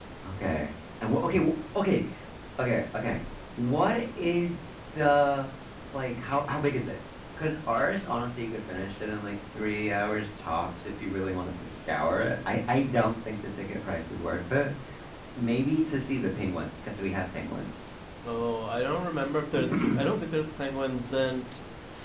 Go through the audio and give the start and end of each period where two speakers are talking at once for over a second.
none

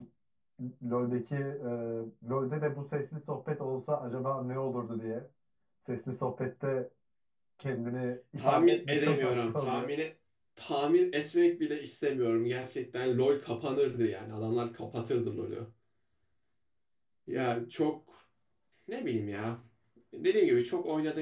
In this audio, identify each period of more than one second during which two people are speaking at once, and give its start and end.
8.4-9.9

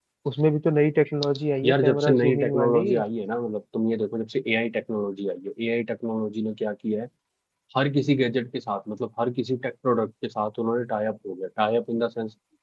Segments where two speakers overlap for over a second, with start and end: 1.6-3.0

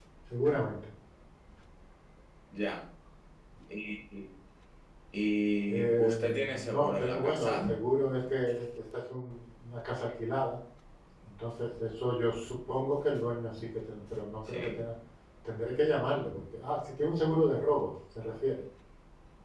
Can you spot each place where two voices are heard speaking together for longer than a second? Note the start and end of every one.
5.7-7.8

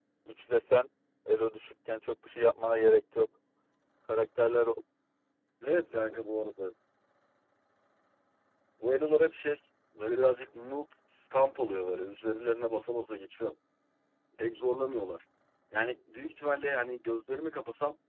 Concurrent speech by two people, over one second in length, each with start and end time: none

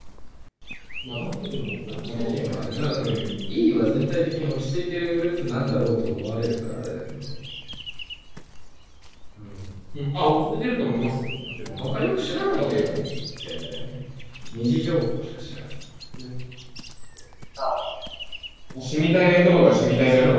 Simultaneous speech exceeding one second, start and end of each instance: 1.9-3.2

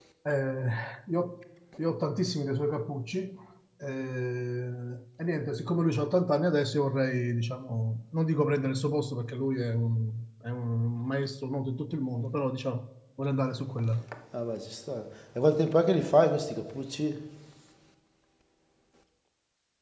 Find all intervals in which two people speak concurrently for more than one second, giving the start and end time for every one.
none

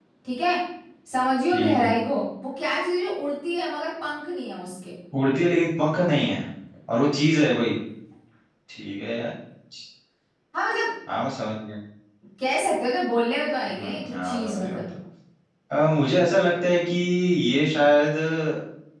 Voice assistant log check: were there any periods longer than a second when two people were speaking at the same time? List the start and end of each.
13.7-14.9

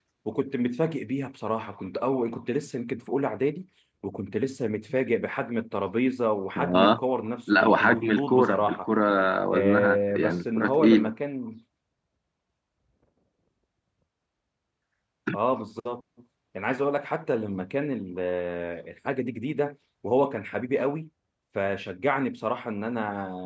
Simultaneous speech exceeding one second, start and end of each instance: 7.5-8.9, 9.5-11.1

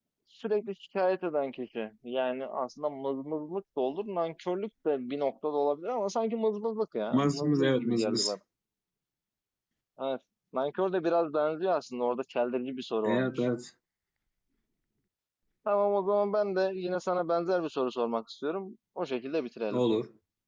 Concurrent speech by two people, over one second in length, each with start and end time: 7.1-8.3

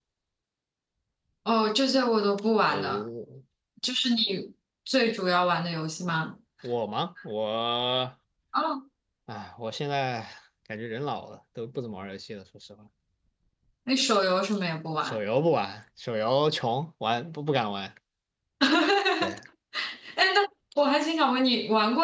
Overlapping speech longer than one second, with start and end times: none

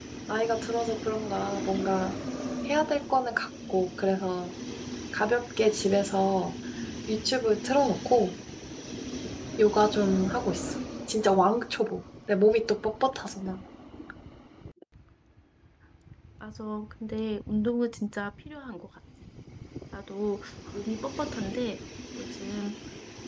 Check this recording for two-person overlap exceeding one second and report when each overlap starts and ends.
none

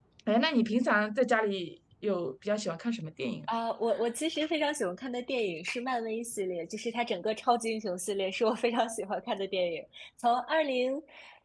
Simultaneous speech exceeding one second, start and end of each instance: none

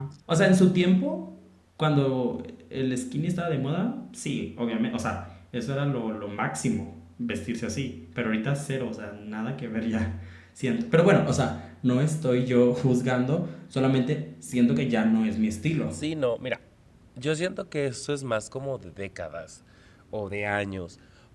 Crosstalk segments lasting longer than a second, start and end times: none

